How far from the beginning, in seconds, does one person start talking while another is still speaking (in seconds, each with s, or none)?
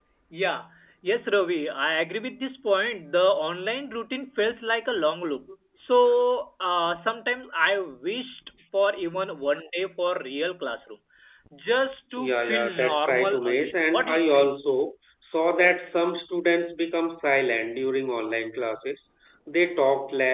12.2 s